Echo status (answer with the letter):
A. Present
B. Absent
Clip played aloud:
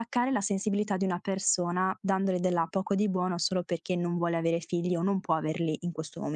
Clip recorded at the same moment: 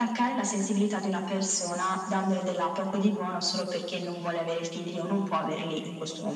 A